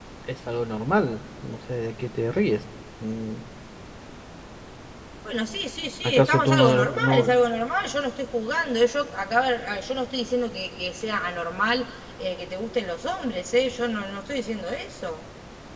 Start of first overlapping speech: 6.0 s

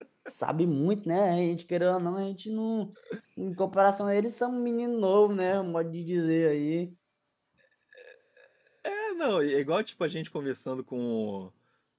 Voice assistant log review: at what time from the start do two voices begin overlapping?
none

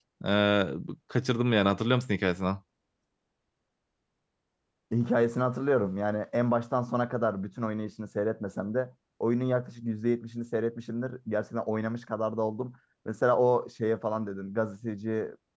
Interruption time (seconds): none

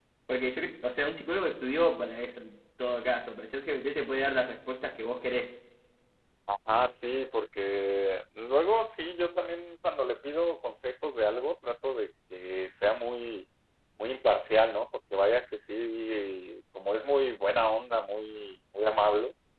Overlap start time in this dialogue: none

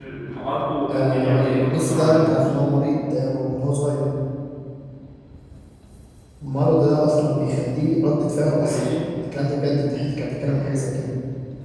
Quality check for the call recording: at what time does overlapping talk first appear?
0.9 s

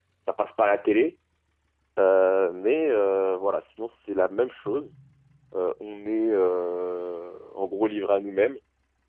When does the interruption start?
none

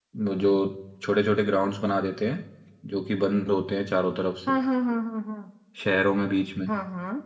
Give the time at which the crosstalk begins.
none

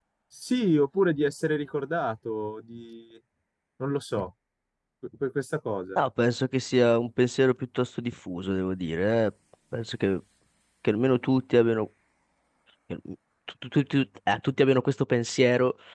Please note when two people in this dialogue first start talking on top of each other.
none

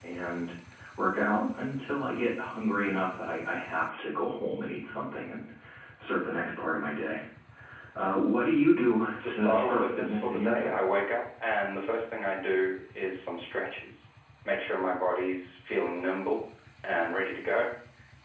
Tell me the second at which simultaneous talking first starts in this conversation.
9.2 s

